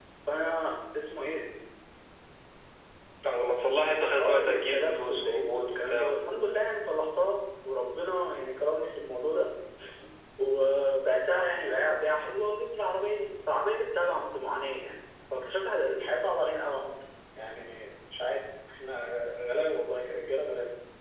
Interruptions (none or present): present